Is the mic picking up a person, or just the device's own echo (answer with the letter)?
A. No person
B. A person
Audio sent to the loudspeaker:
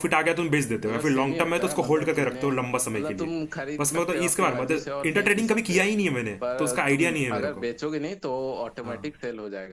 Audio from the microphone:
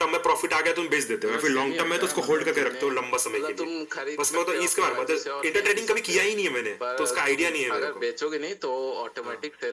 A